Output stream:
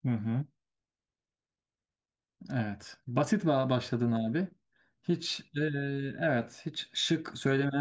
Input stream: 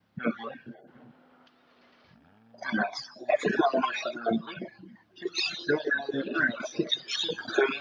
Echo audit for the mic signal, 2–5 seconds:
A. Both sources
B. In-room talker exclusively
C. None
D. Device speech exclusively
D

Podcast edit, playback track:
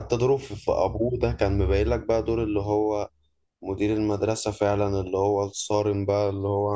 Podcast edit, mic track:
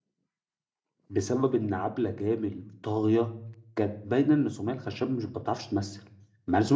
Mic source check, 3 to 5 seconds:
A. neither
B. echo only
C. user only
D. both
C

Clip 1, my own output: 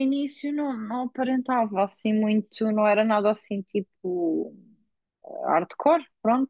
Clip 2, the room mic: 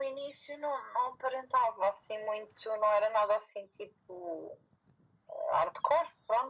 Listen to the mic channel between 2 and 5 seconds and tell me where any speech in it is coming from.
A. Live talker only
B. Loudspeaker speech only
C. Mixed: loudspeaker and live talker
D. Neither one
B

